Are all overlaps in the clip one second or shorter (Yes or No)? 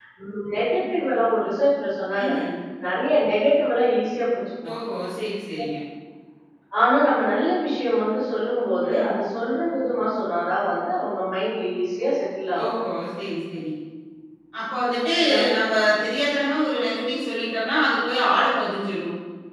Yes